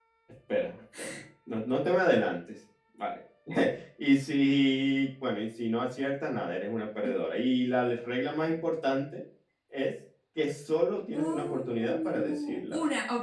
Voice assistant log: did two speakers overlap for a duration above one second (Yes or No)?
Yes